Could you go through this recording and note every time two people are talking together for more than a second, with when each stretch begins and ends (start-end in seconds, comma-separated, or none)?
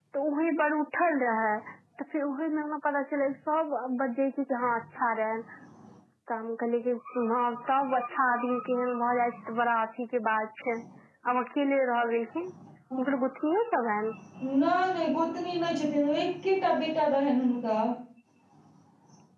none